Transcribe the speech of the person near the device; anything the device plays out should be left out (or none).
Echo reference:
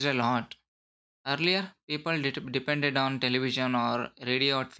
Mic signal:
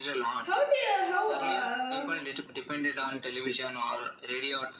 how do you, how uh,